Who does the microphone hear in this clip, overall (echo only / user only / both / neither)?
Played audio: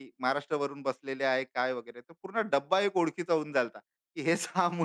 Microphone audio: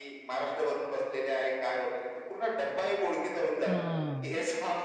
both